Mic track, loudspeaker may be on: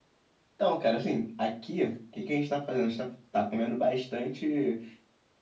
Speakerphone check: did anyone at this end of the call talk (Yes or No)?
Yes